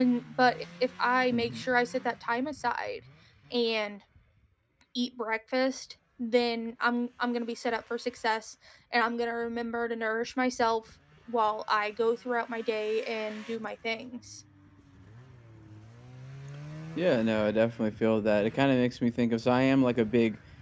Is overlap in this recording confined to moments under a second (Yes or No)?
Yes